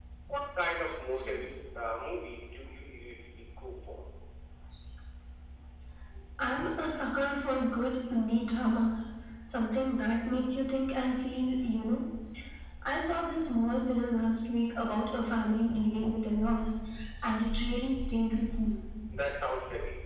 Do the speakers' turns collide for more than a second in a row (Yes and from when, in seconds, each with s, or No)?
No